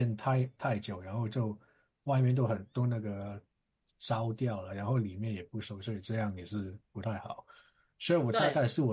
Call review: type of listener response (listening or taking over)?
listening